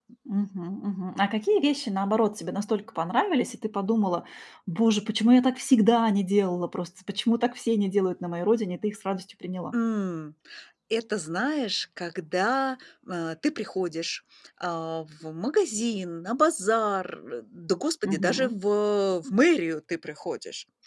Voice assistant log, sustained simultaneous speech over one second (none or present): none